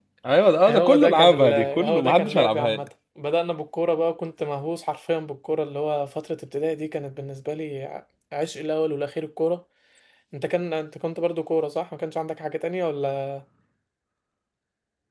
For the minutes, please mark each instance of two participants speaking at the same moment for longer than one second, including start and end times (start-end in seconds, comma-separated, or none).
0.7-2.8